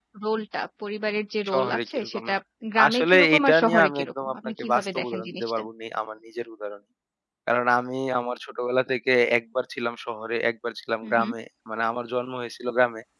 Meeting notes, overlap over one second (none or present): present